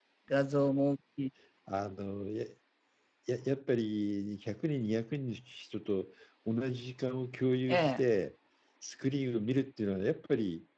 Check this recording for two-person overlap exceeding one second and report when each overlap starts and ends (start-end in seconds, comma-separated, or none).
none